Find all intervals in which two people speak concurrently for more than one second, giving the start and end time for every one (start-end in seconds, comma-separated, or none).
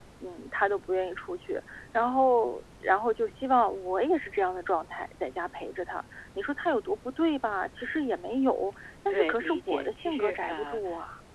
9.1-10.8